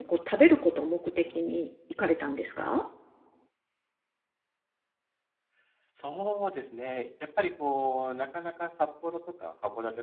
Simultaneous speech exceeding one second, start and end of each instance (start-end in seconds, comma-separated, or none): none